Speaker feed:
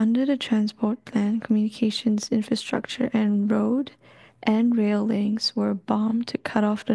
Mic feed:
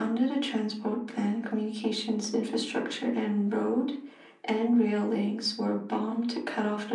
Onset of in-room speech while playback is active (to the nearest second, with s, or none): none